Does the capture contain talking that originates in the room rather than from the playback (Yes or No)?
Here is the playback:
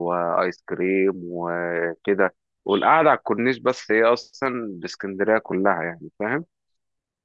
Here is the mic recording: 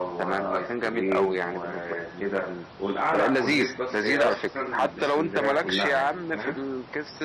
Yes